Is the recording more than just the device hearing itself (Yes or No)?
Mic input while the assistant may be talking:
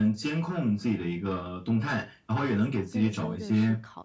Yes